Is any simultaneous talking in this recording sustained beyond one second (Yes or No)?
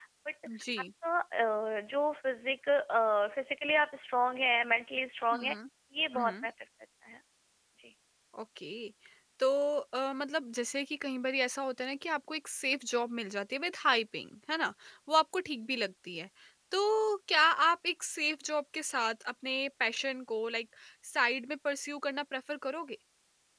No